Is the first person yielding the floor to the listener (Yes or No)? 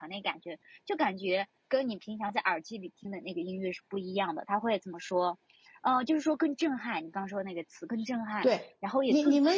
Yes